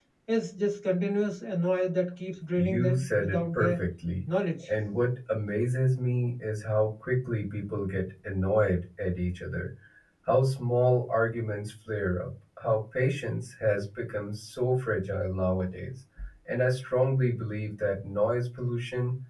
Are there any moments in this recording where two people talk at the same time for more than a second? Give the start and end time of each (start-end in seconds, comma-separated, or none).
2.6-3.8